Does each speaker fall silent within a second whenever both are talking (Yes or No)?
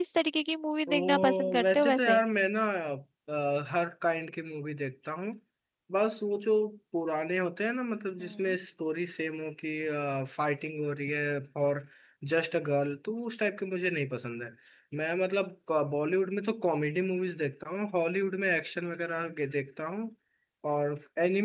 No